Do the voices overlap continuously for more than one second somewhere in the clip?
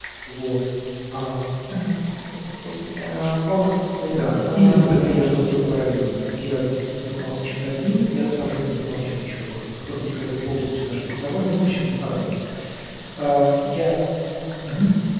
Yes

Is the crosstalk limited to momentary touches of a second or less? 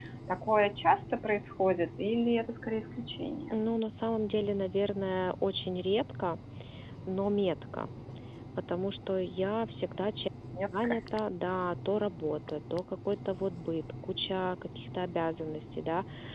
Yes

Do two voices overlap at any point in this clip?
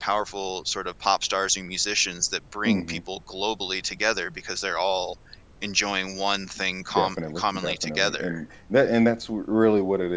Yes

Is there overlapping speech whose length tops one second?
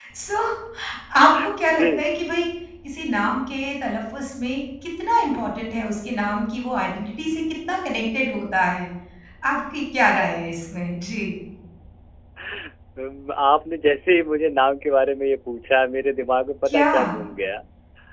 No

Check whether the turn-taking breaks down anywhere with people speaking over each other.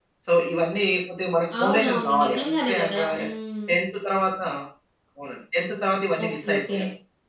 Yes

